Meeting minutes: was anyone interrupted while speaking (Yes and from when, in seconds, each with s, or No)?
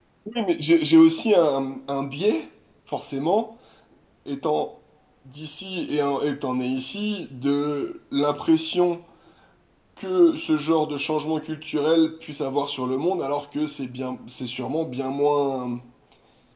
No